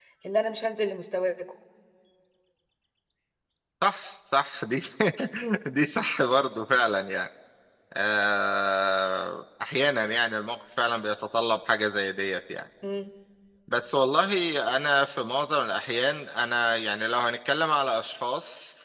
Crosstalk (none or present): none